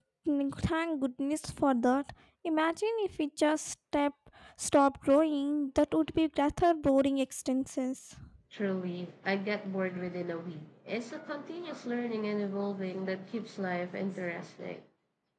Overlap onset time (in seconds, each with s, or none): none